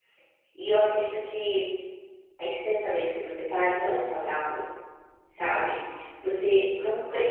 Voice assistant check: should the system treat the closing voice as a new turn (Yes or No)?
No